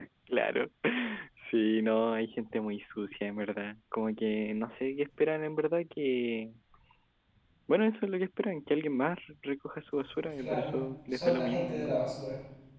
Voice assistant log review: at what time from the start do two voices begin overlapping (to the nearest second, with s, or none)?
10 s